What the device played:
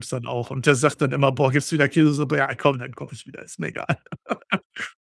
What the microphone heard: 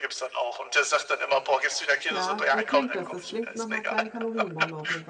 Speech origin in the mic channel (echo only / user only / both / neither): both